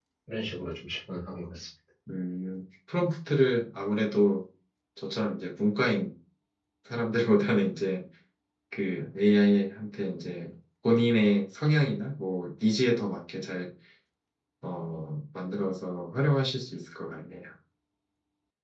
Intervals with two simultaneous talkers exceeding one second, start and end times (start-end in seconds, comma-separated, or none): none